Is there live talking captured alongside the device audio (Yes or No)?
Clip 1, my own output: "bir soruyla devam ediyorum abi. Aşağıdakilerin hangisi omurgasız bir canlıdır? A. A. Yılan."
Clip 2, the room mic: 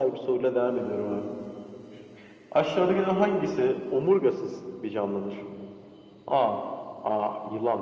No